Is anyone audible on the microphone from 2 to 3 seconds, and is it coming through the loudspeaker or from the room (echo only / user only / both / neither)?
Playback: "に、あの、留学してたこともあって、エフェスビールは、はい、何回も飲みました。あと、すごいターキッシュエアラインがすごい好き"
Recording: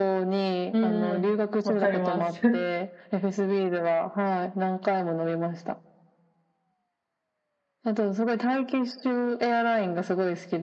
both